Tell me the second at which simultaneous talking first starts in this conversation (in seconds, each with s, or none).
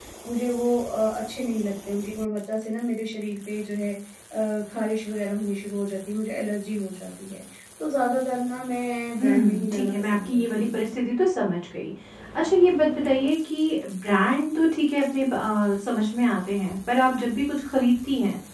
9.2 s